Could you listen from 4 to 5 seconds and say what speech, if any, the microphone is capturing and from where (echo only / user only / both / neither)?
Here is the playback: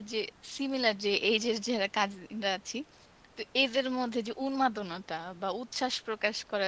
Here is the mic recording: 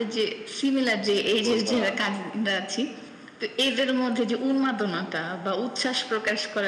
echo only